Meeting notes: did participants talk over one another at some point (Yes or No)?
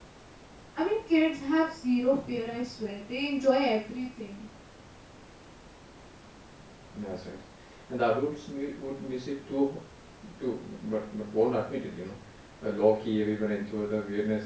No